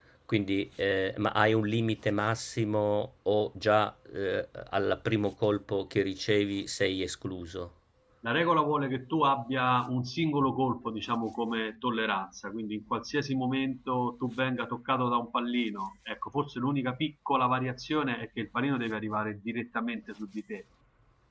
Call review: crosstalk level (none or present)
none